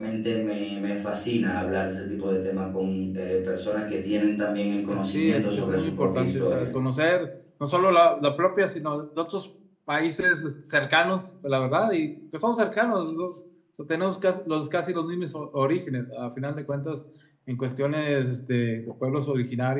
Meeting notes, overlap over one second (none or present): present